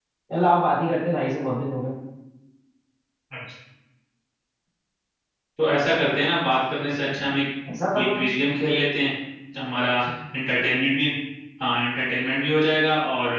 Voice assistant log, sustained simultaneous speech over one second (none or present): none